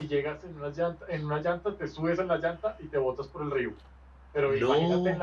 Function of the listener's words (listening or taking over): listening